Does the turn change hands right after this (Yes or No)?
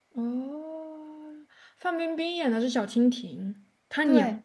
No